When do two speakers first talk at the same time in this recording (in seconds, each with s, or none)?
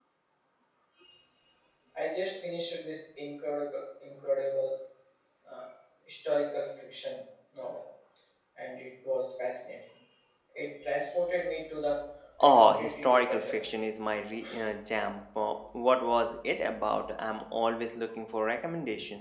12.4 s